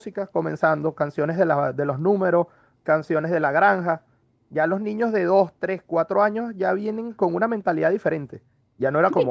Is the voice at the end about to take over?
Yes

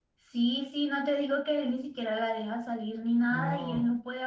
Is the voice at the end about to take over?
No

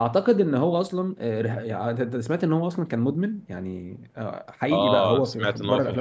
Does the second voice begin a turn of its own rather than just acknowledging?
Yes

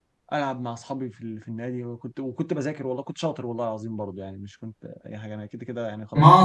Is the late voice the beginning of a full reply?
Yes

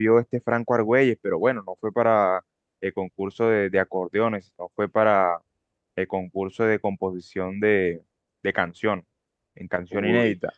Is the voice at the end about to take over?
Yes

